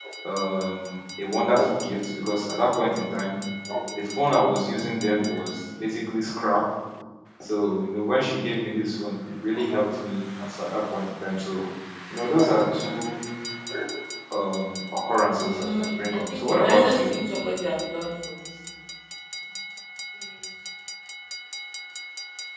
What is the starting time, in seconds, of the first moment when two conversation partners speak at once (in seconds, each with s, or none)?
15.4 s